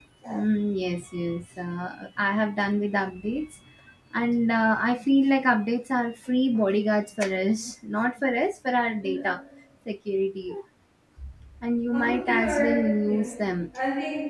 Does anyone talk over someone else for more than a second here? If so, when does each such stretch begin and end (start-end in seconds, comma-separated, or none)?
11.9-13.3